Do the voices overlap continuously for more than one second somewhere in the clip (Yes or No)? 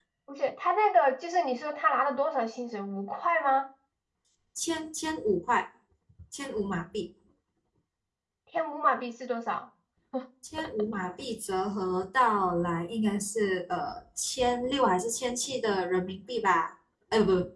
No